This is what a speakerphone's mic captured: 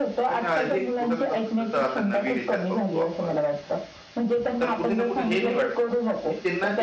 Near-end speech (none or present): present